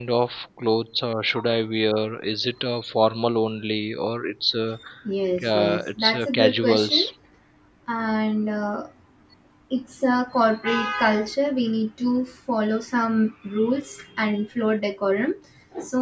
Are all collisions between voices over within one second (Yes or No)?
No